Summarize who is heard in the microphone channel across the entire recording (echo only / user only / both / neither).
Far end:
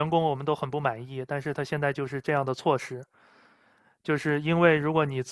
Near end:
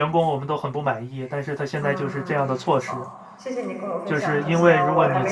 both